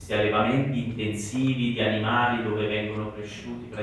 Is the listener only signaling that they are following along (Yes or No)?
Yes